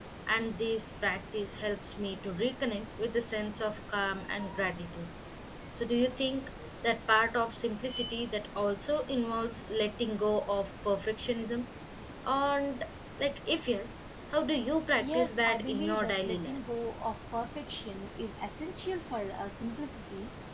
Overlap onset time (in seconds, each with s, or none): 15.0 s